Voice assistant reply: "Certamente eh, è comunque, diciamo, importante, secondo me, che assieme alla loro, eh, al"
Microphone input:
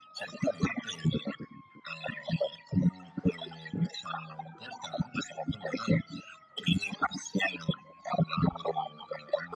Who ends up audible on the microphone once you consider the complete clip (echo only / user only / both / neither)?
echo only